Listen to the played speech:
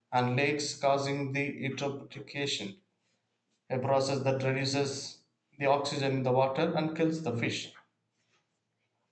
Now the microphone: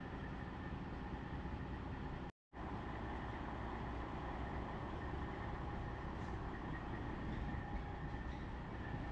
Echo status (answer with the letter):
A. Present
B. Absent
B